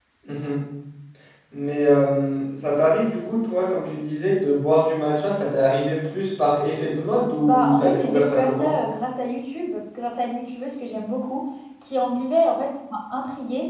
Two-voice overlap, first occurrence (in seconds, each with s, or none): 7.4 s